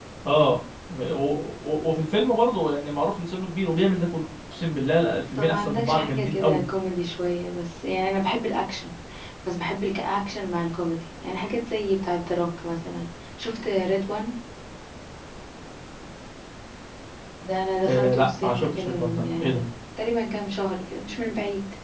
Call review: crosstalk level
present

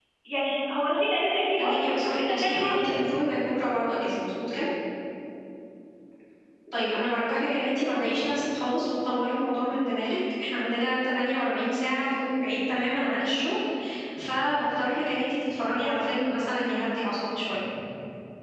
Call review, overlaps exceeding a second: present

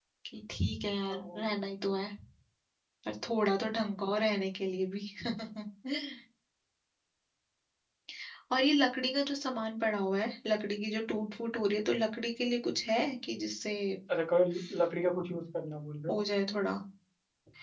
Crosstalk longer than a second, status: none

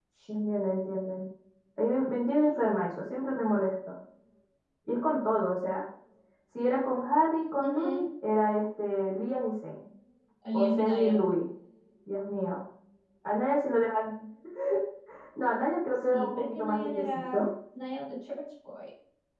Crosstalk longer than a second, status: present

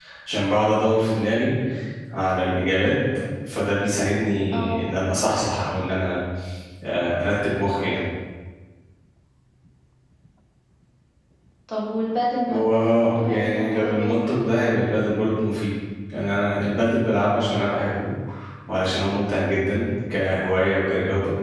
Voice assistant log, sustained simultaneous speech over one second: present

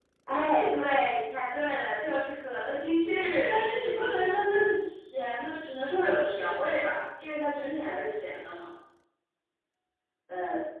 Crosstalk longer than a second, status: none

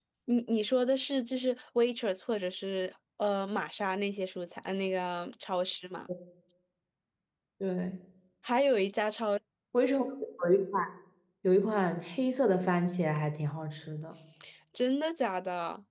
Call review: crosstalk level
none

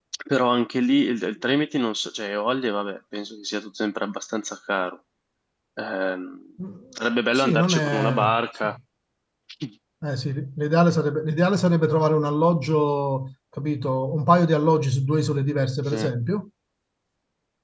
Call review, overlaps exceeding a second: present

